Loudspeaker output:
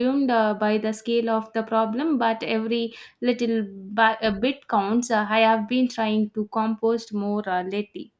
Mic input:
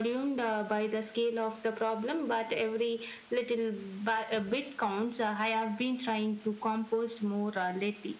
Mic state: echo only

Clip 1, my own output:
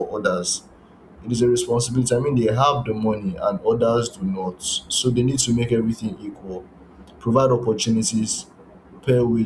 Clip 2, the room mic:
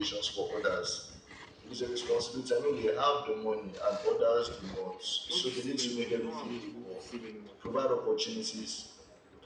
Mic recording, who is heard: both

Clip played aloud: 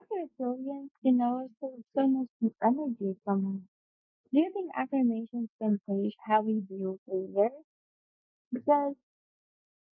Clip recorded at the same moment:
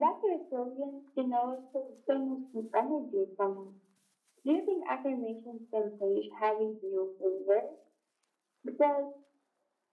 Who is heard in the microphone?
echo only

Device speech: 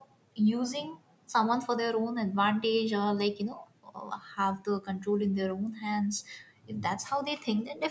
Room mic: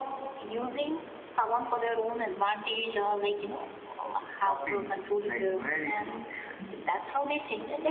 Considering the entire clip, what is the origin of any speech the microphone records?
both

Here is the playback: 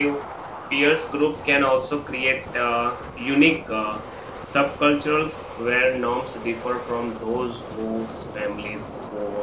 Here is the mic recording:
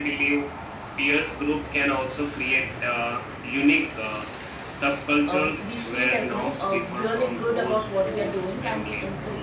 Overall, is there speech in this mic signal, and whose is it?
both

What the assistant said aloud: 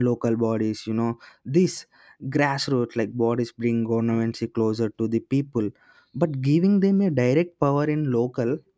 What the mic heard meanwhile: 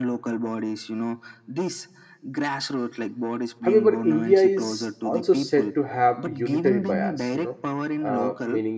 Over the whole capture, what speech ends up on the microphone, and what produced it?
both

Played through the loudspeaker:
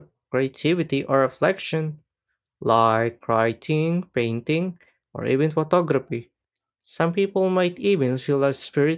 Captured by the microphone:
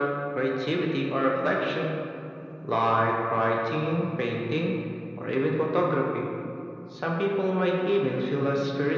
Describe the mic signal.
echo only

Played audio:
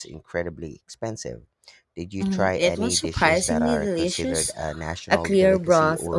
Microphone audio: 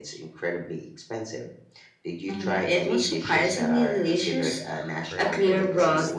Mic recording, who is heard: both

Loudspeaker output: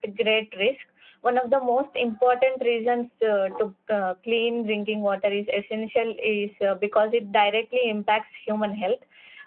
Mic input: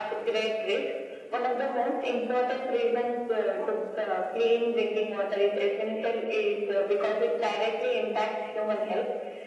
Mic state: echo only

